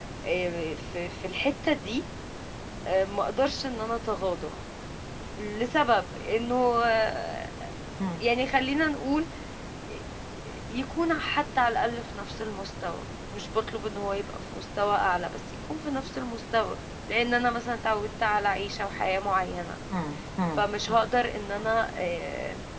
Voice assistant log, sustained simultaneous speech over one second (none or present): none